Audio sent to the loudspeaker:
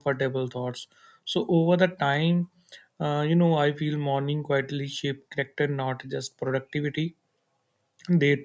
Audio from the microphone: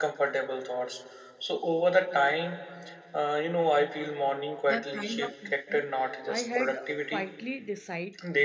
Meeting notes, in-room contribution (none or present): present